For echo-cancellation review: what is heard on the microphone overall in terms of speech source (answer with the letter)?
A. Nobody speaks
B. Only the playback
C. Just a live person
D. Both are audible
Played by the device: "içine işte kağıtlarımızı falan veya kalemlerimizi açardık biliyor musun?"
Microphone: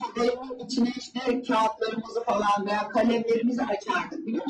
B